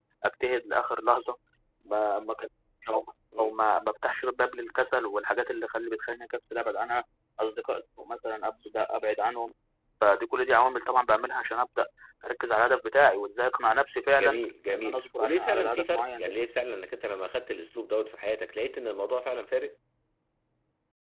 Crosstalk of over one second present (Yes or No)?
Yes